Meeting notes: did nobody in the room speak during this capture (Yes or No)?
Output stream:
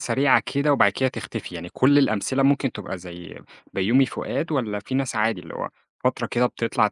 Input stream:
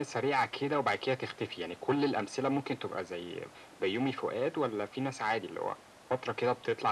Yes